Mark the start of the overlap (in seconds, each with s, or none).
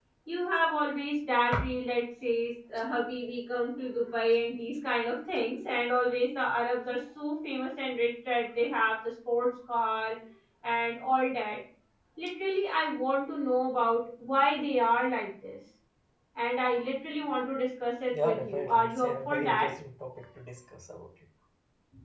18.1 s